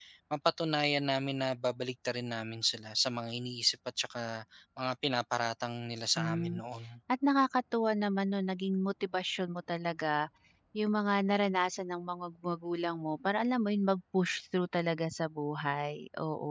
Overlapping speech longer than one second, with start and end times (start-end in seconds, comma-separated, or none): none